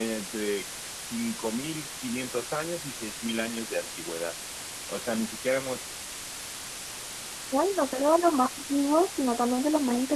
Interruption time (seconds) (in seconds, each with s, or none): none